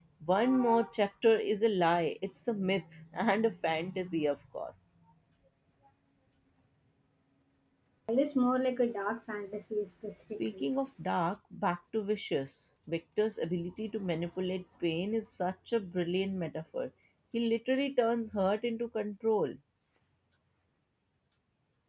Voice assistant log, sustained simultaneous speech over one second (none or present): none